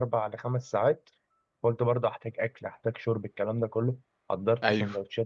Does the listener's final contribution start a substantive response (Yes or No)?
No